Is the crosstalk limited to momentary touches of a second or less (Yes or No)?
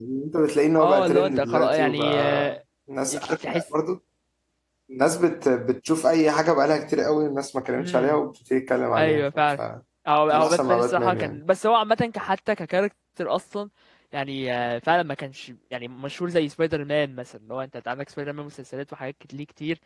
No